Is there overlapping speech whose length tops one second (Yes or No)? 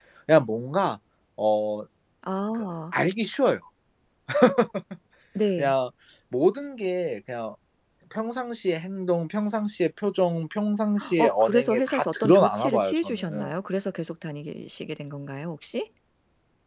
Yes